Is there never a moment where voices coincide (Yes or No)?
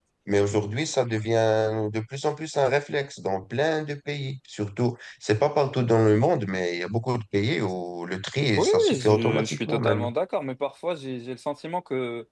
No